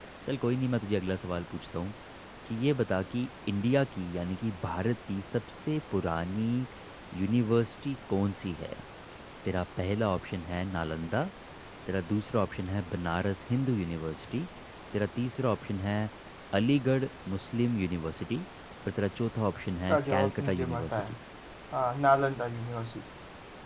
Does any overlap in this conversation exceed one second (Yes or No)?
Yes